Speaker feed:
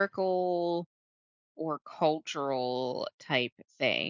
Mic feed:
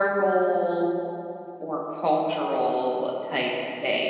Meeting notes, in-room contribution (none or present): none